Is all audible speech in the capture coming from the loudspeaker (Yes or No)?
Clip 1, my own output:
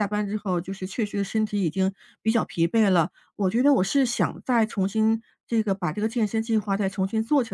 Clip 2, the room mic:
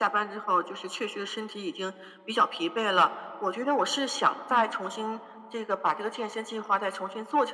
No